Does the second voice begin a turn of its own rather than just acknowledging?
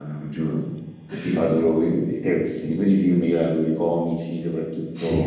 No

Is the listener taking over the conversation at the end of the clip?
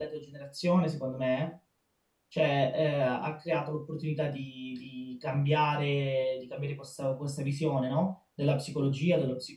No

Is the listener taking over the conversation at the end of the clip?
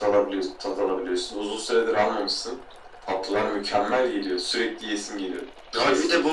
Yes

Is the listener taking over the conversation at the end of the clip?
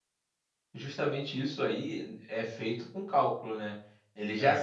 No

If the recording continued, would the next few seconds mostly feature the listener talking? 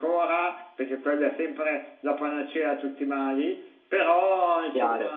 No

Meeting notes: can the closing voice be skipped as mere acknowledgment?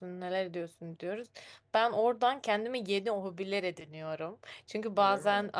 Yes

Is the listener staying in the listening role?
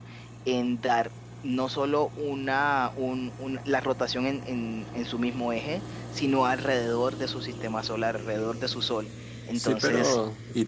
No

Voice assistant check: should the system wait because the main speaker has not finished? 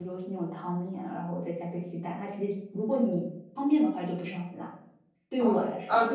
No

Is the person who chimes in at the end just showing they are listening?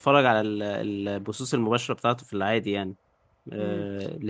No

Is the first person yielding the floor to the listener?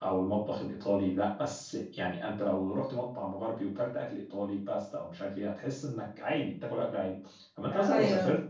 No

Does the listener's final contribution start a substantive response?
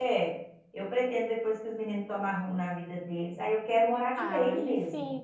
Yes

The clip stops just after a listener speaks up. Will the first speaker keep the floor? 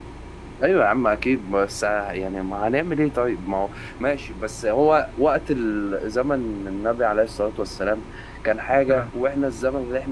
Yes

